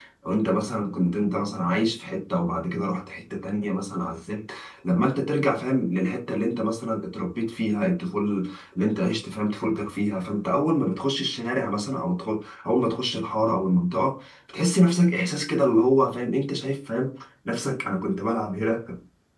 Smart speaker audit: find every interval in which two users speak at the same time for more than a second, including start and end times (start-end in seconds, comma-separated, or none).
none